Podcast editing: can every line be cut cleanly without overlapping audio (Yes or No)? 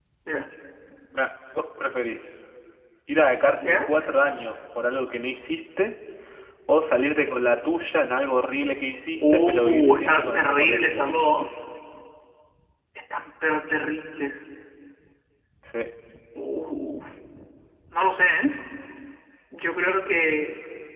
No